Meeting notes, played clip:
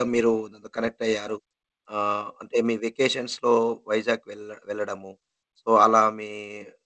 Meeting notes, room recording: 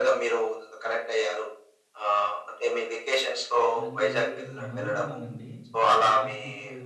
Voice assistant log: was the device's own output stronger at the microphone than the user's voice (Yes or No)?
Yes